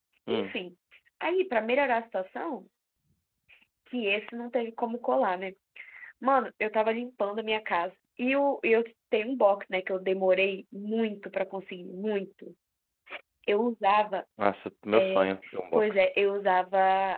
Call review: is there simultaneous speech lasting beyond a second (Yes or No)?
No